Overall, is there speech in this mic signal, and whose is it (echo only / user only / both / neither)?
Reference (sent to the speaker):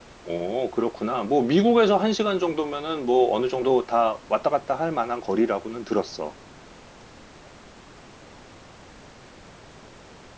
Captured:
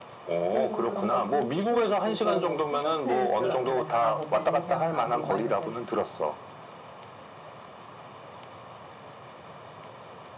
both